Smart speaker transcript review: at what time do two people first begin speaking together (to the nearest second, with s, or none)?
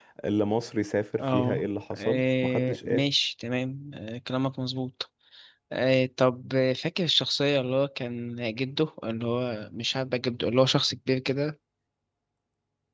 1 s